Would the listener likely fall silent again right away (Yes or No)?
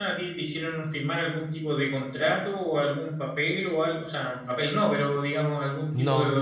Yes